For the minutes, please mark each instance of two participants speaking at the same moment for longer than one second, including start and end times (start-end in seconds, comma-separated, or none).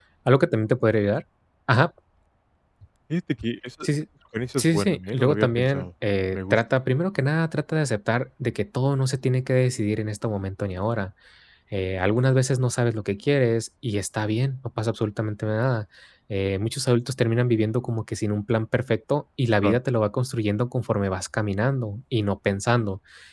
4.6-5.9